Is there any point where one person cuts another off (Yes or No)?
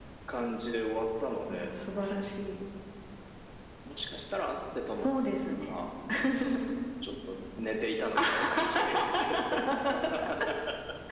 Yes